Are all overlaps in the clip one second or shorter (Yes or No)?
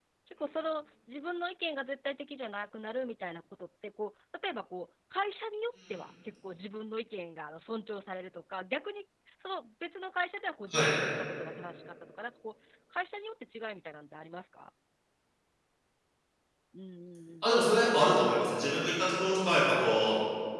Yes